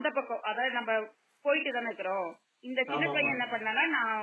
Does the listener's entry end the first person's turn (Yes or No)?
No